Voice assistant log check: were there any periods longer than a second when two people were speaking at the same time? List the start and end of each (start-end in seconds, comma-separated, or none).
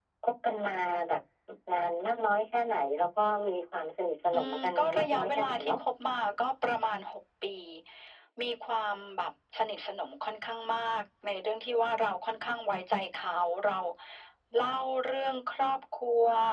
4.3-5.8